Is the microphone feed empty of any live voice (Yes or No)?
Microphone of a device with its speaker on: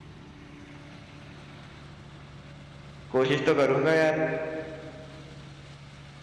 No